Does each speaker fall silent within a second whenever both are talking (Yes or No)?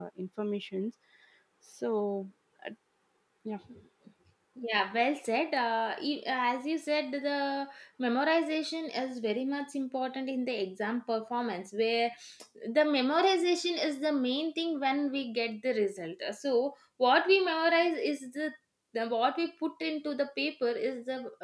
Yes